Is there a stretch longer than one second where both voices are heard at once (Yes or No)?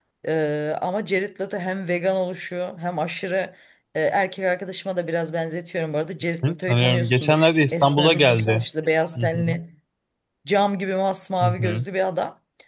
Yes